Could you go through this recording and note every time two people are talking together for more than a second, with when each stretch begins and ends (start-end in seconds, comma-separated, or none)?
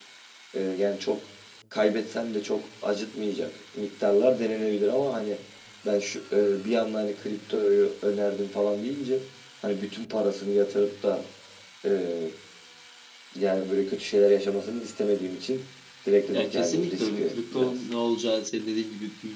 16.3-17.7